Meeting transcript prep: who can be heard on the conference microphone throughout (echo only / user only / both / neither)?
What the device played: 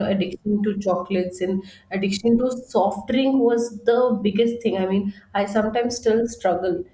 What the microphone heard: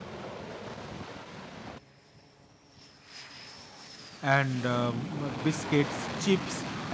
user only